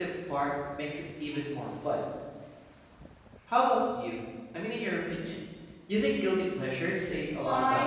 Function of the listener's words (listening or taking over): taking over